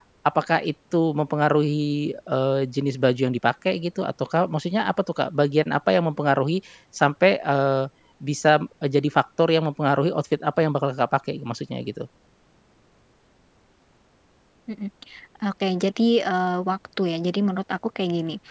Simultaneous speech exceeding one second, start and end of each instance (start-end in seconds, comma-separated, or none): none